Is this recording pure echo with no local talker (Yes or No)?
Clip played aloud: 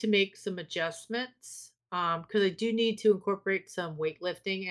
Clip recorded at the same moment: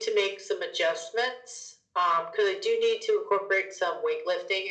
Yes